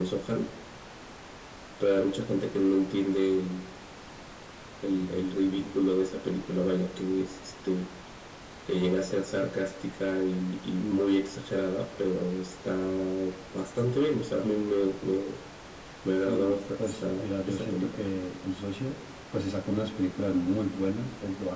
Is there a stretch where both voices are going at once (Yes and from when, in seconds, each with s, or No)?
Yes, from 16.3 s